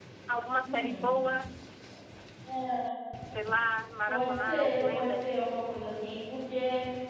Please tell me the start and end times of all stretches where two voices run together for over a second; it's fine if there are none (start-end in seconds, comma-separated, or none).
4.1-5.3